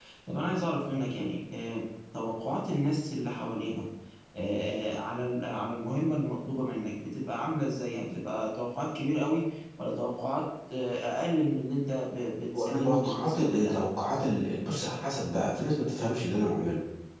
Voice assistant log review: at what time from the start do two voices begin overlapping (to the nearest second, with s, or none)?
13 s